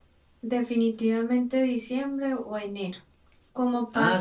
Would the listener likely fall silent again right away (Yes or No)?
Yes